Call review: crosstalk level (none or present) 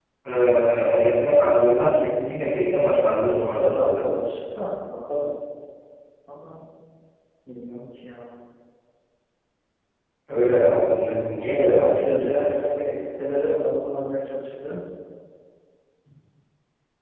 present